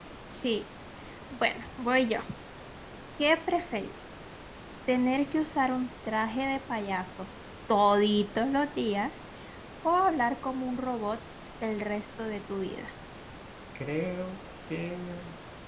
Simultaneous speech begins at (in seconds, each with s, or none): none